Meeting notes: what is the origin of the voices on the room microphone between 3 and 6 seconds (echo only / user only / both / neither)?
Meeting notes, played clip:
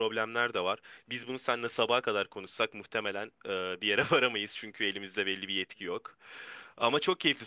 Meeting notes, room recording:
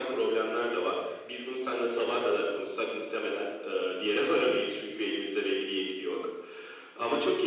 echo only